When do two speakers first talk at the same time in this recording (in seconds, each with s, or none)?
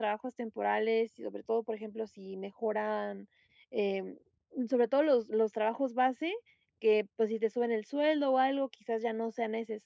none